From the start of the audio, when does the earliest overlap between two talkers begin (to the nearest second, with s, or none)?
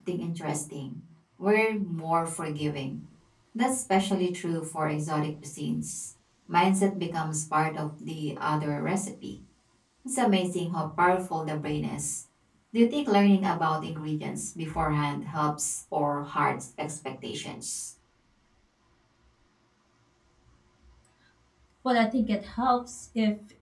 none